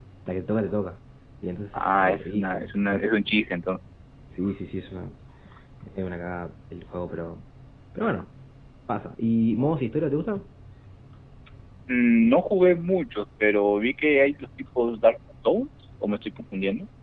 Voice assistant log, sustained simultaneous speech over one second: present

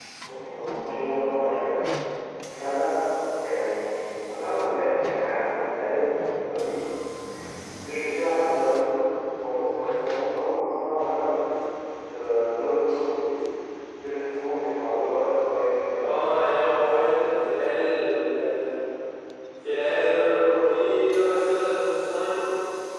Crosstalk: present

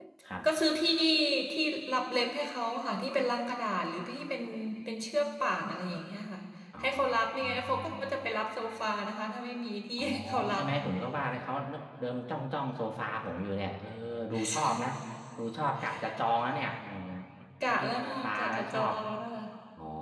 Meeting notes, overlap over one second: present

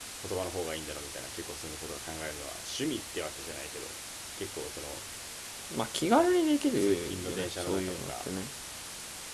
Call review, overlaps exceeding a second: present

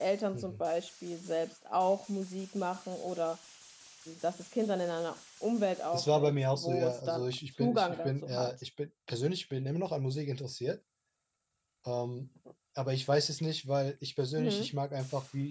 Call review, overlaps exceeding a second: present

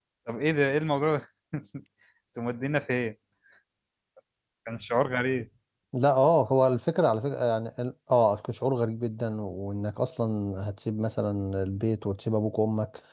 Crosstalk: none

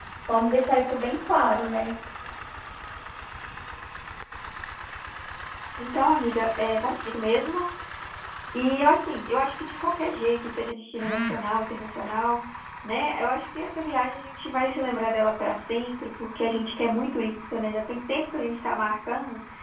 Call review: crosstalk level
none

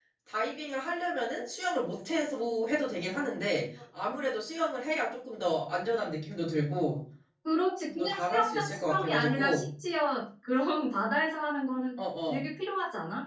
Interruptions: present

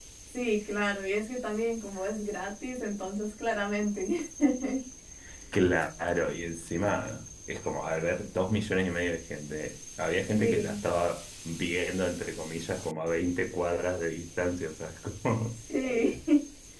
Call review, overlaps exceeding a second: none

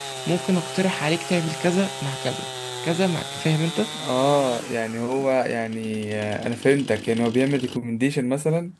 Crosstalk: none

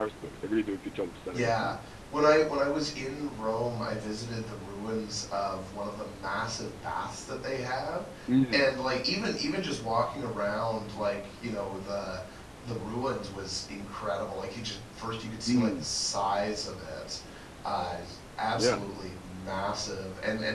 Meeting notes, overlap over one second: none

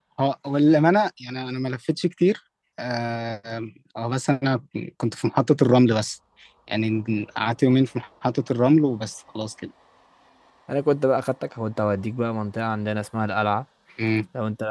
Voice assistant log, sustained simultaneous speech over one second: none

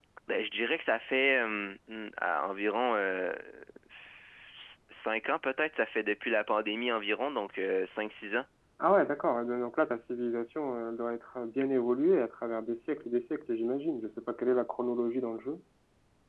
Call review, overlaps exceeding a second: none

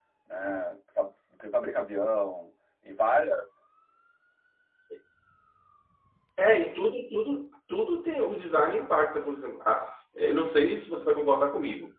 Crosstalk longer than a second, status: none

